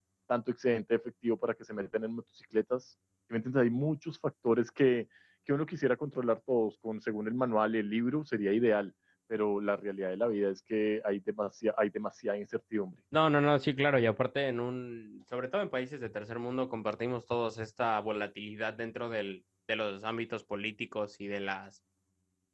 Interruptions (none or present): none